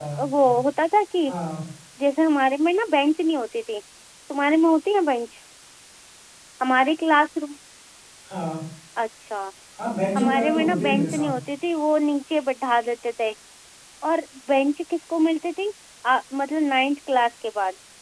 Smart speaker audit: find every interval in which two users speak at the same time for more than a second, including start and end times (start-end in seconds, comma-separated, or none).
10.2-11.4